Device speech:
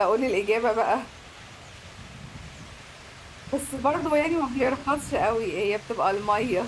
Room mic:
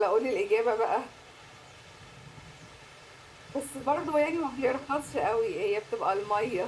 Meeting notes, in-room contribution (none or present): none